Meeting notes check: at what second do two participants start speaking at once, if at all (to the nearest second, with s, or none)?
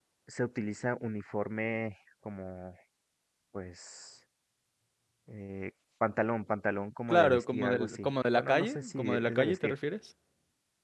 7 s